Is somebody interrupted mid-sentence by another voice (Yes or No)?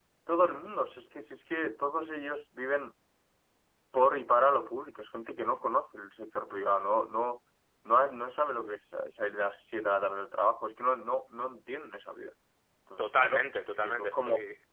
Yes